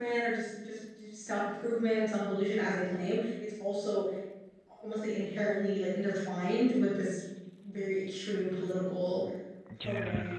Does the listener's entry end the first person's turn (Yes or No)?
Yes